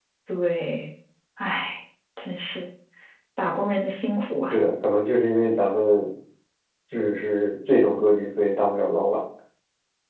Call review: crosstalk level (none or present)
none